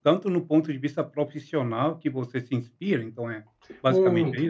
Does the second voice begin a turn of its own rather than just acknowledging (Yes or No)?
Yes